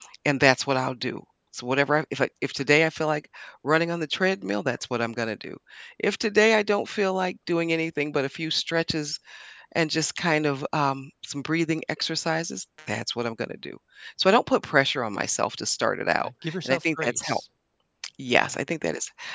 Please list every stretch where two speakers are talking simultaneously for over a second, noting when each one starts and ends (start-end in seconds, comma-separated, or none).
16.2-17.4